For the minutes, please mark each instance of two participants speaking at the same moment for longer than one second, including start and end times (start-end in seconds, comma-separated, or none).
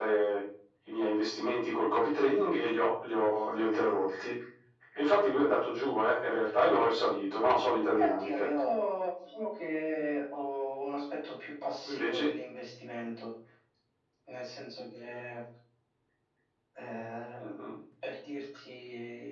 none